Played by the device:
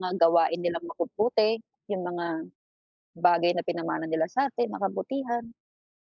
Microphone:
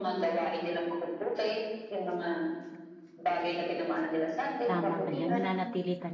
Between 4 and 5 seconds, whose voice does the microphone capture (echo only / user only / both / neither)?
both